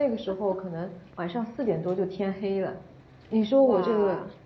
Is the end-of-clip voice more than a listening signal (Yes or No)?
No